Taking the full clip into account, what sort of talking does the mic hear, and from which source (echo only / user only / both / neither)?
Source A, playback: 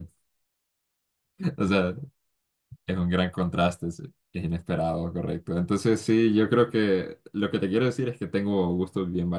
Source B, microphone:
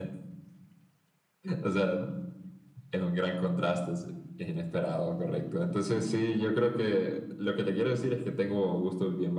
echo only